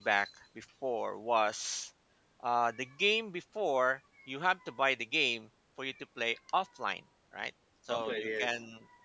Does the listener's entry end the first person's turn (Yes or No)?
No